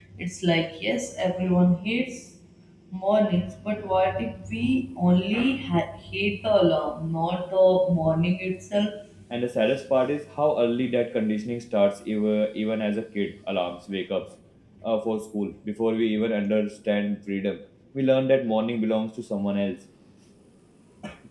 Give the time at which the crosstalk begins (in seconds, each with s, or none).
none